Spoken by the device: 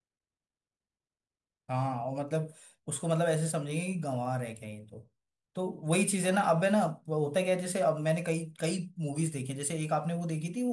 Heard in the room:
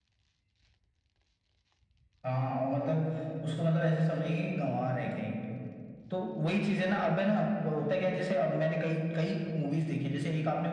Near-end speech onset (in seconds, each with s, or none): none